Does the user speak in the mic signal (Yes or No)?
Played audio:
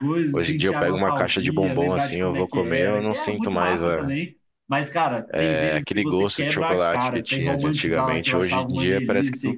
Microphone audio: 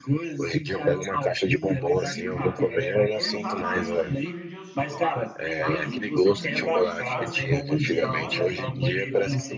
Yes